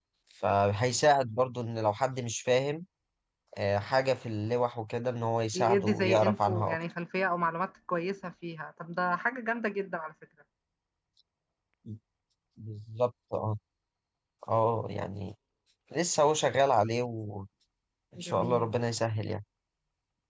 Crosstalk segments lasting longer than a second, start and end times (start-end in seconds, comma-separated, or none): 5.5-6.8